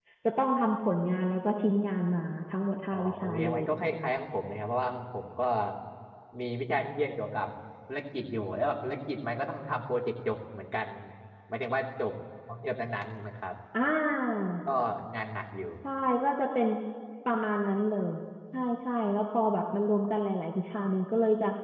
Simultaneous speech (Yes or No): Yes